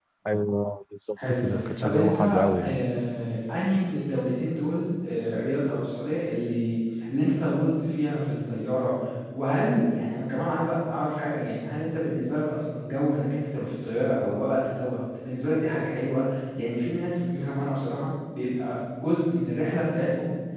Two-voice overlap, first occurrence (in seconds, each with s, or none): 1.3 s